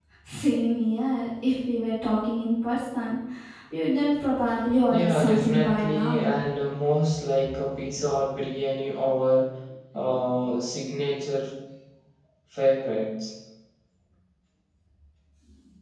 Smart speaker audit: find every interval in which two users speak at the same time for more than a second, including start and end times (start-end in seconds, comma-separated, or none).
4.9-6.3